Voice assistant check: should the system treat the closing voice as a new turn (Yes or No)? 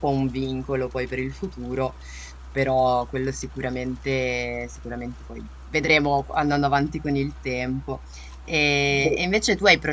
No